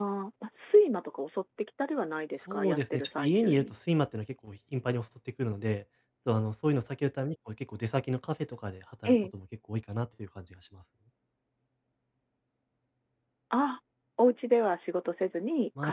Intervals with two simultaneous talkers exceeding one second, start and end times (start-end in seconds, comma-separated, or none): 2.4-3.7